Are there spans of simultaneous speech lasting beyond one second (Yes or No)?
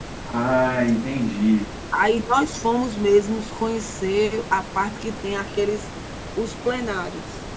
No